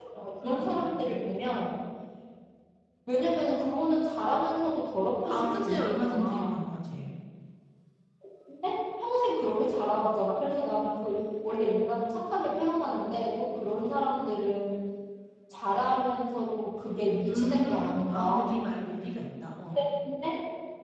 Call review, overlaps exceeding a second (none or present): present